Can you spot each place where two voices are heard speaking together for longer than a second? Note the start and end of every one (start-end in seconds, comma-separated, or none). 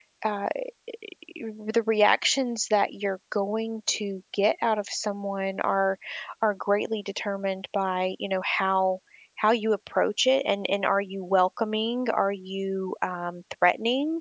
none